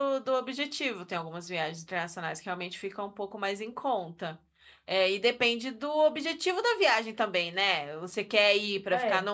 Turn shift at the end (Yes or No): No